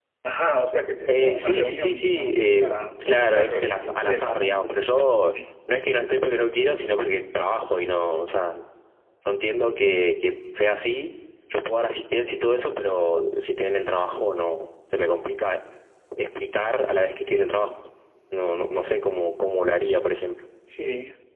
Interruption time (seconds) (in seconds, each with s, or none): 1.1 s